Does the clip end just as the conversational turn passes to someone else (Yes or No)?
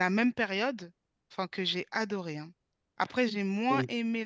No